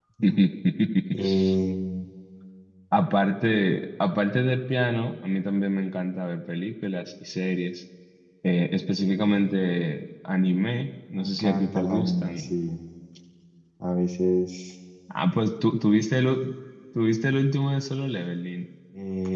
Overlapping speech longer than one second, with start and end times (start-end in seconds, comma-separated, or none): 11.1-12.5